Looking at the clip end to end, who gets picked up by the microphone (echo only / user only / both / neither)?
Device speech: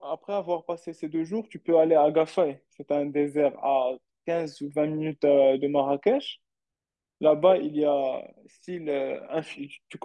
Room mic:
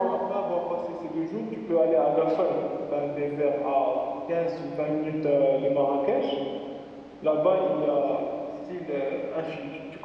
echo only